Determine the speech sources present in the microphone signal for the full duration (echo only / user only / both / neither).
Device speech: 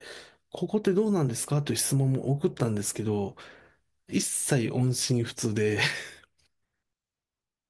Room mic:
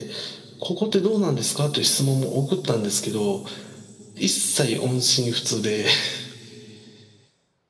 echo only